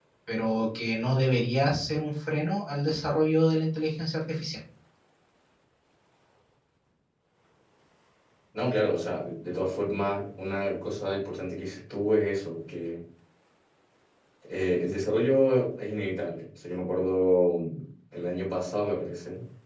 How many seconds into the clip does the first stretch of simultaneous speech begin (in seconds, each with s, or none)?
none